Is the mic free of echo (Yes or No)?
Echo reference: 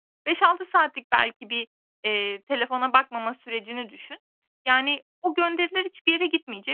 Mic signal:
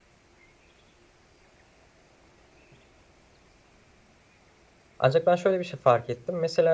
Yes